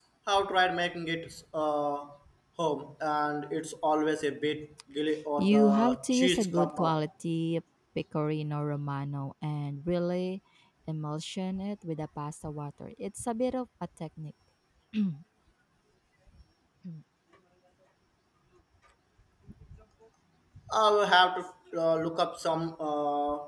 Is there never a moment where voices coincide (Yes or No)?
No